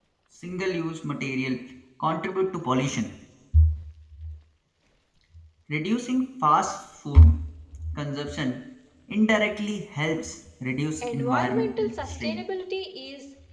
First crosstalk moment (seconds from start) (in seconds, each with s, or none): 11.0 s